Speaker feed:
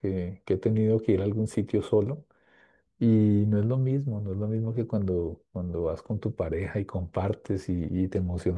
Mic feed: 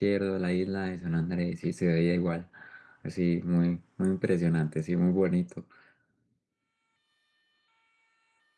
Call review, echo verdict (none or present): none